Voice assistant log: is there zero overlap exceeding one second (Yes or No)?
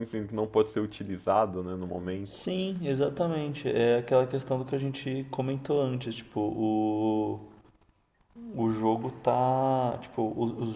Yes